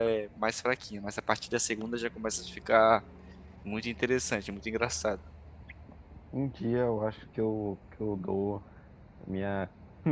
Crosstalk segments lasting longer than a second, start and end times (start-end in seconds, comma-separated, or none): none